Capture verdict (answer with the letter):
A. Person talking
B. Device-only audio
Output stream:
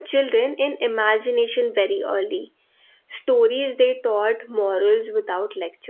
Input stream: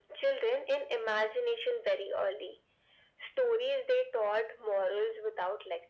B